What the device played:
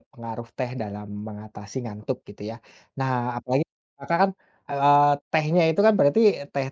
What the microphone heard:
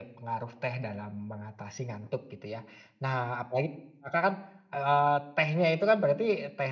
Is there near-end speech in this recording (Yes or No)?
No